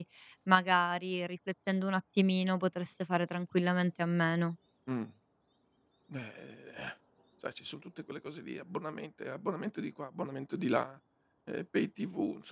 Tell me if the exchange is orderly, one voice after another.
Yes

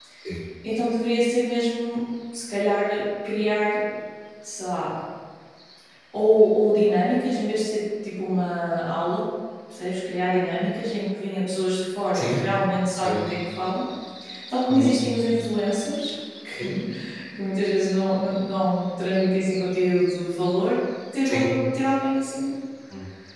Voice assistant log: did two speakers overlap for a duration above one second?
No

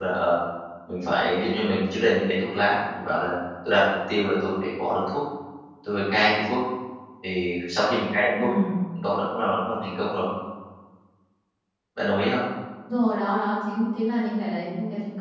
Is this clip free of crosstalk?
Yes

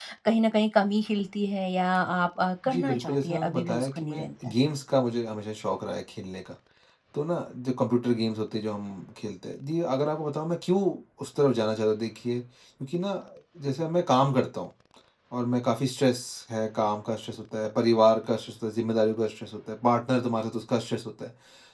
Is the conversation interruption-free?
No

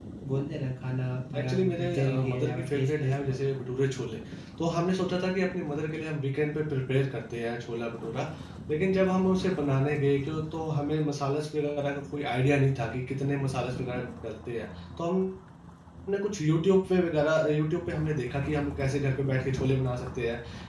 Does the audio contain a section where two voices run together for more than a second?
Yes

